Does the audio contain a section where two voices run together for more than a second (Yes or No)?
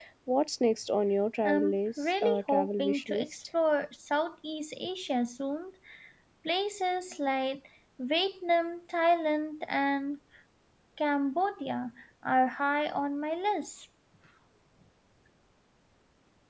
Yes